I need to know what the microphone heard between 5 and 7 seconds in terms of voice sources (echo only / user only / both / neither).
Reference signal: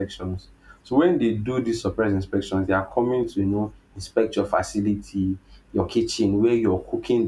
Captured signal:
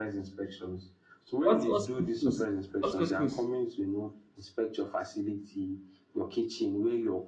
echo only